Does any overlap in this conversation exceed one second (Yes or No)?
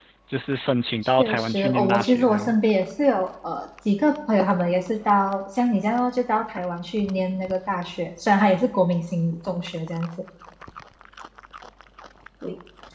Yes